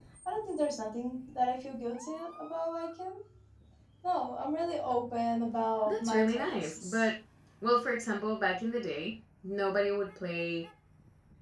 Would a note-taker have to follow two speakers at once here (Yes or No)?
Yes